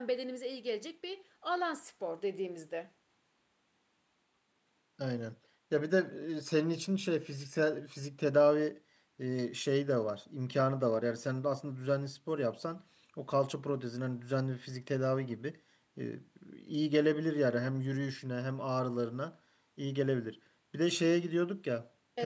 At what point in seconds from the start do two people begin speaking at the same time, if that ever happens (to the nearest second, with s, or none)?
none